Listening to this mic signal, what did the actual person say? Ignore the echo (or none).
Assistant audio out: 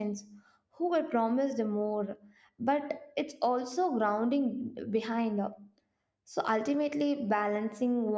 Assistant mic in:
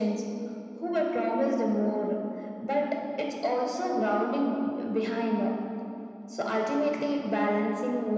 none